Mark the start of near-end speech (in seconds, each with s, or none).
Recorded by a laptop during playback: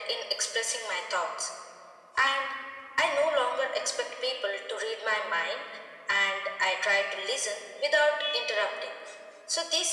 none